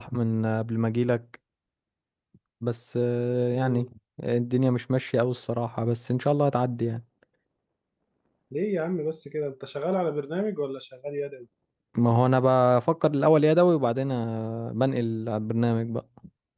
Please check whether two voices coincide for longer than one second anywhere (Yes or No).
No